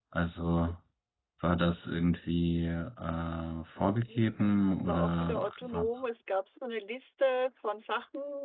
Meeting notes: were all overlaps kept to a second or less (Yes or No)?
No